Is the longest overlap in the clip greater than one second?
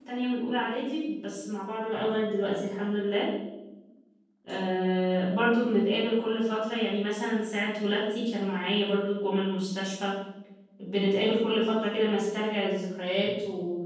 No

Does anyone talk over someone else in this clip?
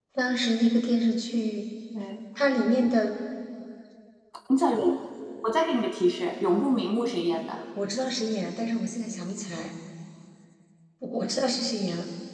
No

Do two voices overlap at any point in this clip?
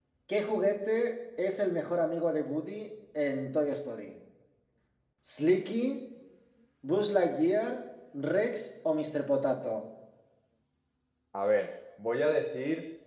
No

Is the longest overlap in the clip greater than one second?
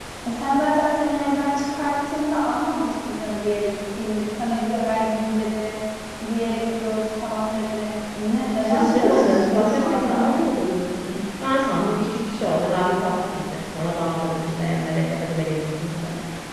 Yes, from 8.6 s

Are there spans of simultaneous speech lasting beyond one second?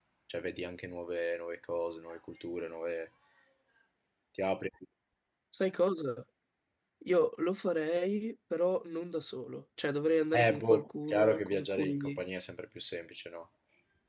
Yes, from 10.3 s

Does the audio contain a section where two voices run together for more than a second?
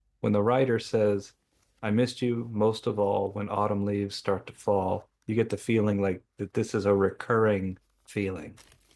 No

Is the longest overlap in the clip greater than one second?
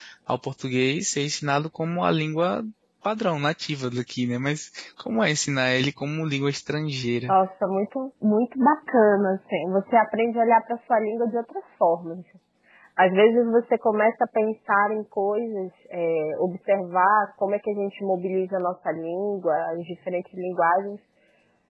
No

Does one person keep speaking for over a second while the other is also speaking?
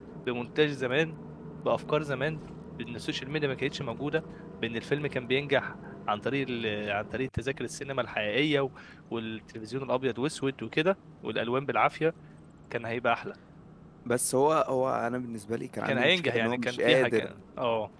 Yes, from 15.8 s

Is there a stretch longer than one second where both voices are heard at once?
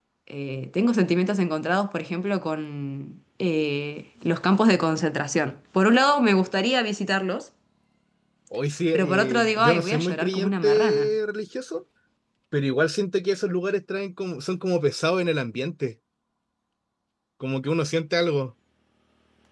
Yes, from 8.9 s

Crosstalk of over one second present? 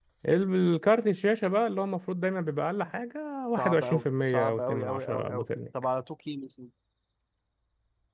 Yes, from 3.6 s

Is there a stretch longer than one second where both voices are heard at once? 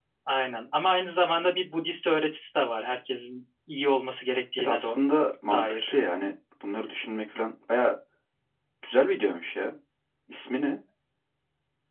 No

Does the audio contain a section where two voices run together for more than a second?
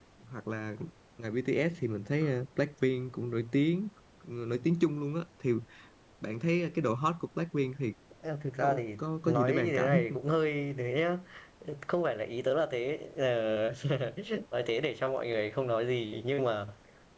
Yes, from 8.6 s

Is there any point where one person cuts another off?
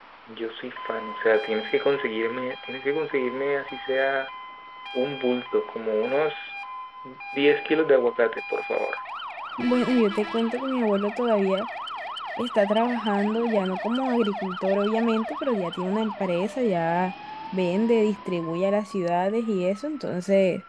No

